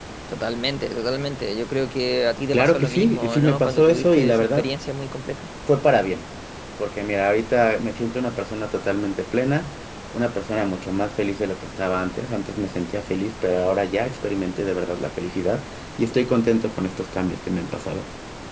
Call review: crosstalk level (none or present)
present